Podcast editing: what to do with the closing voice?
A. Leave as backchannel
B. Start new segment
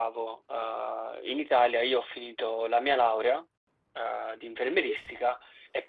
A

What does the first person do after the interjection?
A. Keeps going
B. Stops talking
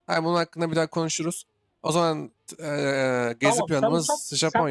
B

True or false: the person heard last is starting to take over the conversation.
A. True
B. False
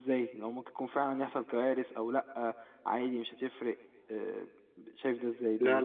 A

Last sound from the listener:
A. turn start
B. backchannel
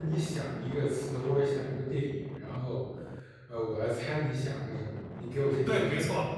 A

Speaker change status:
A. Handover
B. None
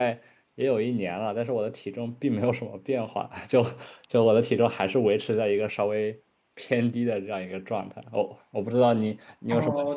A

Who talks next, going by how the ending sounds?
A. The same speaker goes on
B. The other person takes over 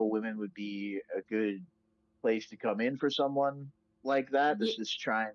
A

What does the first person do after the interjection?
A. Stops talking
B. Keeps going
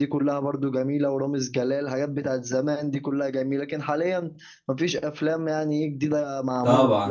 A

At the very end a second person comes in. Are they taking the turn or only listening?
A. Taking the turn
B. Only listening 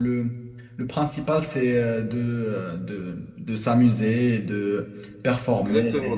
A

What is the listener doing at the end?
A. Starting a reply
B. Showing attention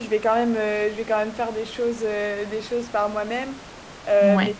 B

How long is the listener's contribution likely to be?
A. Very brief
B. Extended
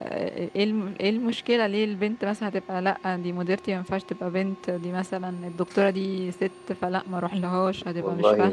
B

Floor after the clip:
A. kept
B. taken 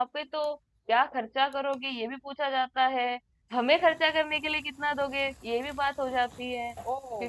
B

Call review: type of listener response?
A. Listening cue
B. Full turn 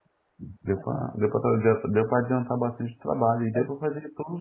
A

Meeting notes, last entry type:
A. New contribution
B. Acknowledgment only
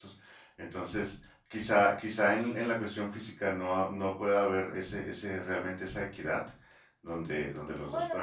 A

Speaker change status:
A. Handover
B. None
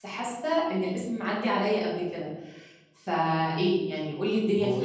A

